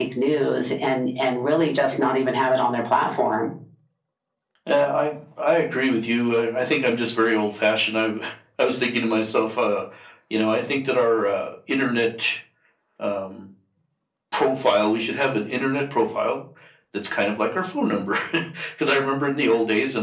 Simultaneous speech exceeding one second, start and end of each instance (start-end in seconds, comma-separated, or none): none